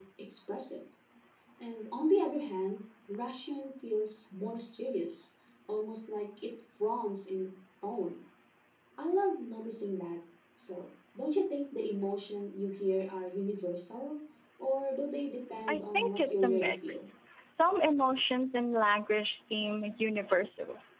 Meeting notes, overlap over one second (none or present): present